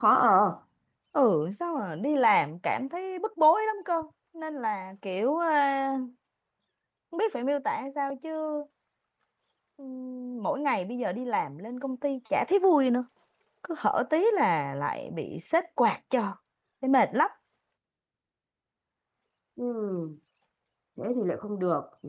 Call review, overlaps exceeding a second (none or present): none